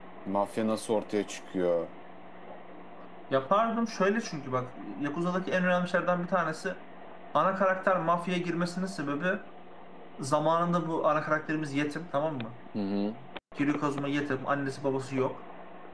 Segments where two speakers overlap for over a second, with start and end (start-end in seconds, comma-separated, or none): none